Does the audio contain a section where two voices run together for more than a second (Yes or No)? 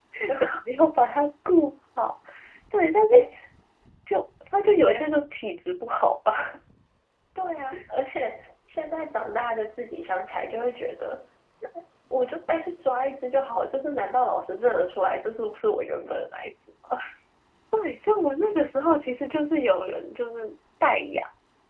No